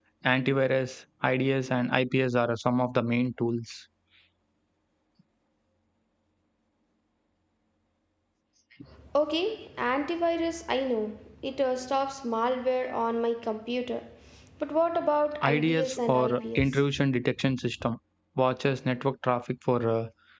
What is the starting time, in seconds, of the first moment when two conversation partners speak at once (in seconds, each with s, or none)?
15.4 s